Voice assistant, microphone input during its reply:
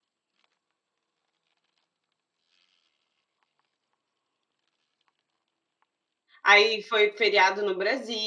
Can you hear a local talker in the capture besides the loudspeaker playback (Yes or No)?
Yes